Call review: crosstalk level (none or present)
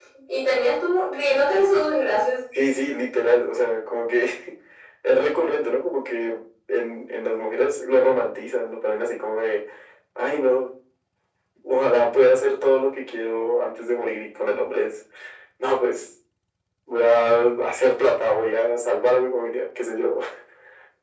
none